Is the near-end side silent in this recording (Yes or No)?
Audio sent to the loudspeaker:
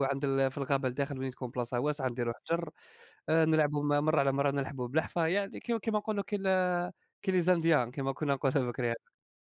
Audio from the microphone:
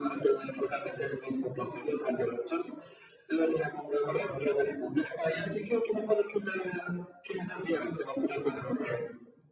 Yes